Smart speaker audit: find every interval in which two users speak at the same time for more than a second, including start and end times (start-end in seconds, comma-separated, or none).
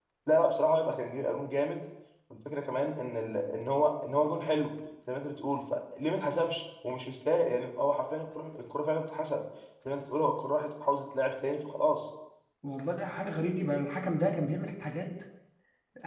none